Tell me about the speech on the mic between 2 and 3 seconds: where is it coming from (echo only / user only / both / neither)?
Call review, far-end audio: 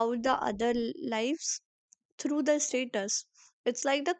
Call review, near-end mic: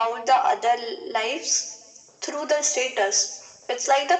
echo only